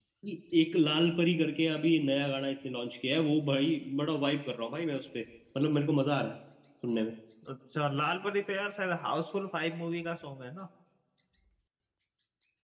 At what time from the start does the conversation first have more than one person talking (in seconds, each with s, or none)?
none